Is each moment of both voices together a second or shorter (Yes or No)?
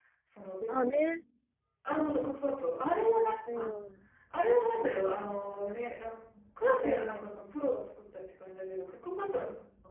Yes